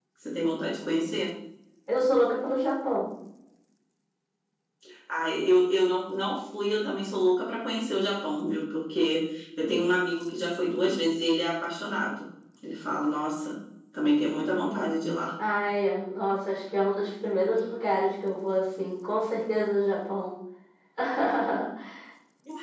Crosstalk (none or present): none